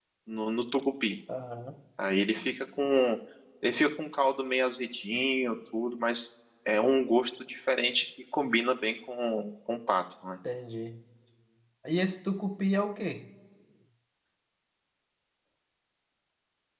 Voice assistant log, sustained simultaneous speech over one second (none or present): none